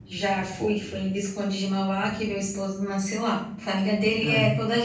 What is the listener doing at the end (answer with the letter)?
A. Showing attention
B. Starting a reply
A